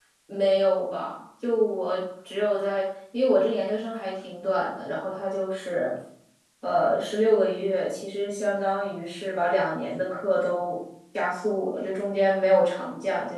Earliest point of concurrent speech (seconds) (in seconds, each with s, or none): none